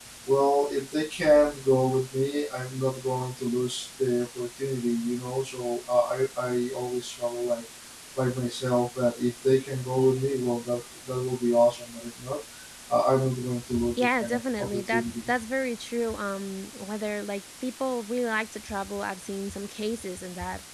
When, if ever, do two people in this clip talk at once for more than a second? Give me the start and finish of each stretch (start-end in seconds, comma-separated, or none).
14.0-15.2